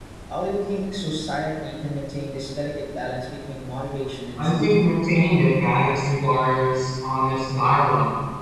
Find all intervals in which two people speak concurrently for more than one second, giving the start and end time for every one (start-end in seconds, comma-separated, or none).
none